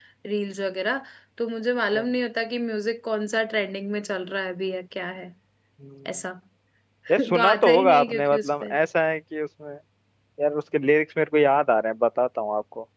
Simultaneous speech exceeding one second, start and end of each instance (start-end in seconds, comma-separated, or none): 7.2-8.7